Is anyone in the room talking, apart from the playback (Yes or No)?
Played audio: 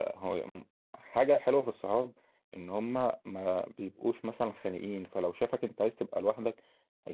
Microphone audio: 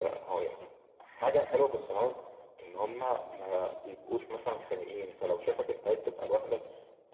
No